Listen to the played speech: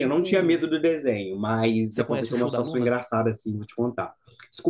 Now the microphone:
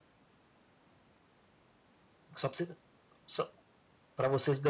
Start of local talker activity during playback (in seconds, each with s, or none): 2.4 s